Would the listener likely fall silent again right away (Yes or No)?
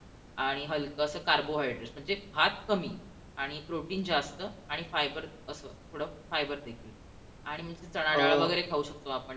Yes